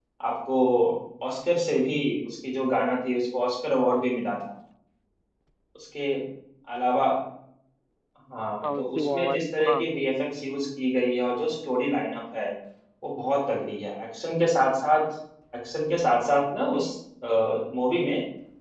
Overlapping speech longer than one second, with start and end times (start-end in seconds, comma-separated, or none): 8.6-9.8